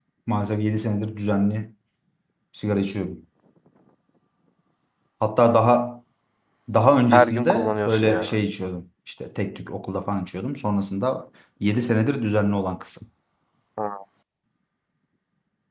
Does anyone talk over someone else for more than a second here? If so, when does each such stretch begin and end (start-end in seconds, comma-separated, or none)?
7.1-8.3